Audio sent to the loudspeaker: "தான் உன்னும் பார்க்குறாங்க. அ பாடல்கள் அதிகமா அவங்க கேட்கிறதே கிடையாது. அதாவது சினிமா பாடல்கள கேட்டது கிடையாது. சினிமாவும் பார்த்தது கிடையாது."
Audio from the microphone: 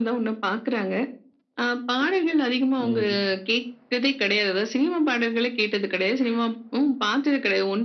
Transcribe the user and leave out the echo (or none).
ம்ஹும்.